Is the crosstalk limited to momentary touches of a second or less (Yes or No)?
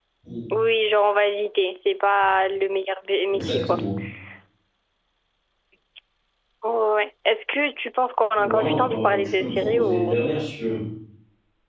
No